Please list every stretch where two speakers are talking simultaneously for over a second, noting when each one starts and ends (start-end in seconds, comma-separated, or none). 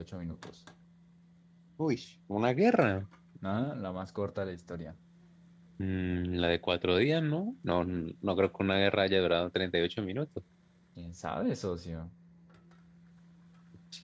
none